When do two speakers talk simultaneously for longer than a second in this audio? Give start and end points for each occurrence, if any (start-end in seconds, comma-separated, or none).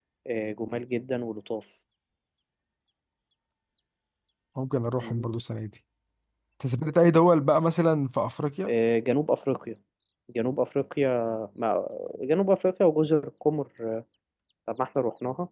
none